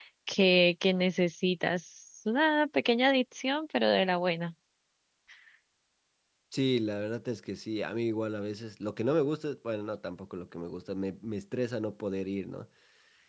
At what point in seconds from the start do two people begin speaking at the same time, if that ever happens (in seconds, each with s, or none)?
none